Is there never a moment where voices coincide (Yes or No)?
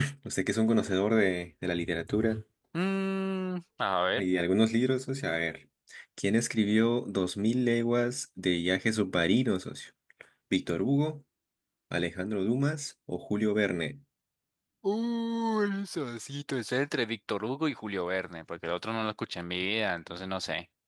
Yes